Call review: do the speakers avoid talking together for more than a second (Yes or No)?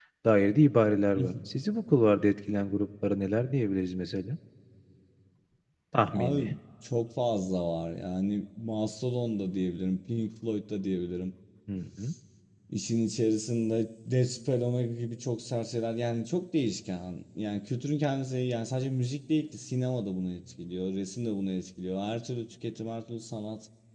Yes